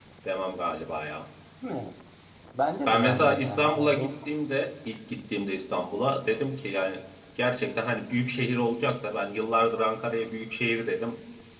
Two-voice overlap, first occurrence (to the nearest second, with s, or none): 3 s